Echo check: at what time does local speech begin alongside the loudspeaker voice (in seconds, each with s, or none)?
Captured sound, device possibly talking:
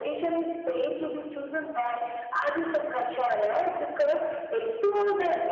none